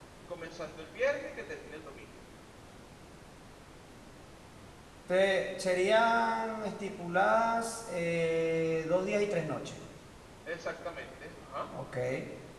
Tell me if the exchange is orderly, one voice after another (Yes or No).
Yes